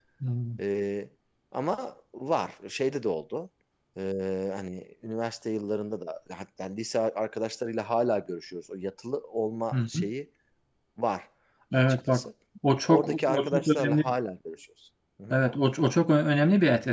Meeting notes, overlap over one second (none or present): present